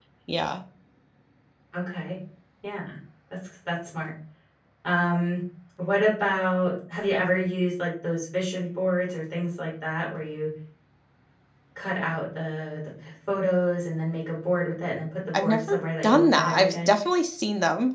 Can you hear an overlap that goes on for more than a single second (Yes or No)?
Yes